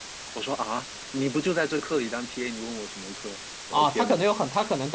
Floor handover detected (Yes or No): Yes